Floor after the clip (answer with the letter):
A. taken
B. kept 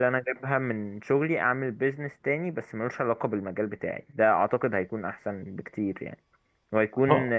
B